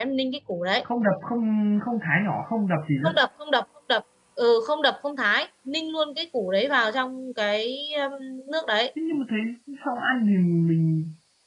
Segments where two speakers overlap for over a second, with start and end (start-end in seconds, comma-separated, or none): none